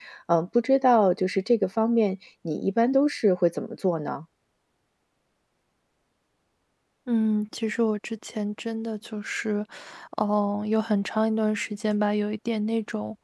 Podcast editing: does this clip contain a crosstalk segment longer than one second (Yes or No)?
No